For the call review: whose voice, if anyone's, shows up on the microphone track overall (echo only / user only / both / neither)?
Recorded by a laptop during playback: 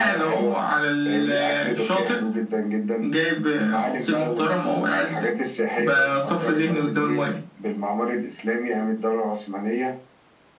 echo only